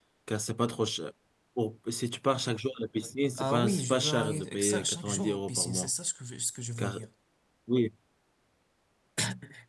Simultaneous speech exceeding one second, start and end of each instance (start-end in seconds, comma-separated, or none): 3.4-5.9